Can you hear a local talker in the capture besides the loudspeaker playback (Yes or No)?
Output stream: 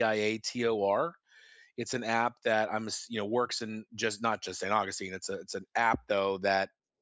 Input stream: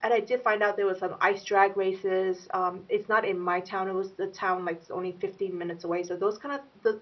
Yes